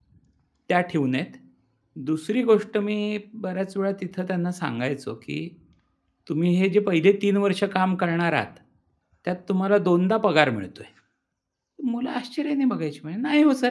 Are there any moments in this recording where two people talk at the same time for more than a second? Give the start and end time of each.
none

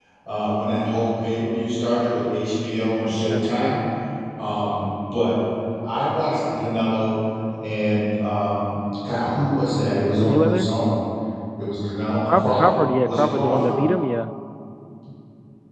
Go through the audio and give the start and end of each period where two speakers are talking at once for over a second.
12.3-13.9

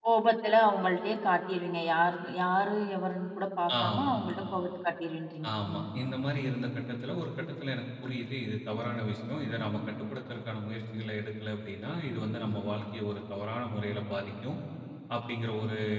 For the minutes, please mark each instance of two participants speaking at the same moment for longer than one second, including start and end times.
none

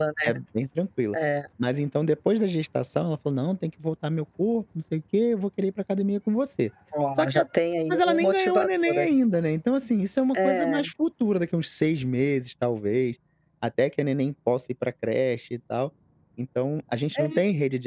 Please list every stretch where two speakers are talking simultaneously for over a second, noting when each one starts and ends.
7.9-9.1

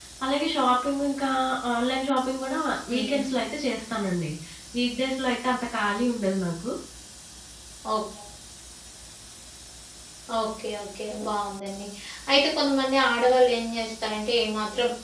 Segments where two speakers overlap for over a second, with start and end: none

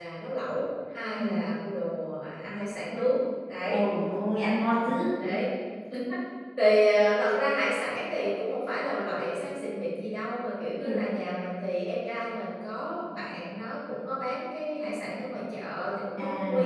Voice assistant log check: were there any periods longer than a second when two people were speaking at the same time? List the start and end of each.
none

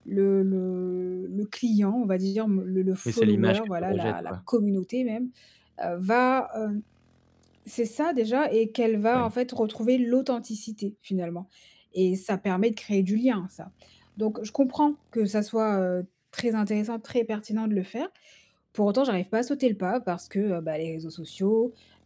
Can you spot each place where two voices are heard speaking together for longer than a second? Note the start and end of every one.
3.1-4.3

